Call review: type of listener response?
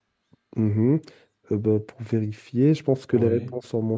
listening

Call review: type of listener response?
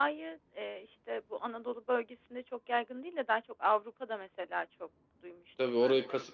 taking over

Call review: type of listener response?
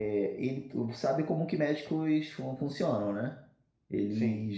listening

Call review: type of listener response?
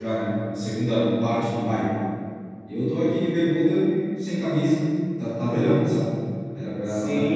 taking over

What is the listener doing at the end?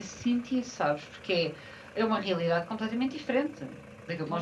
taking over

